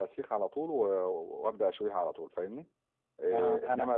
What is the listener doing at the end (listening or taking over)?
taking over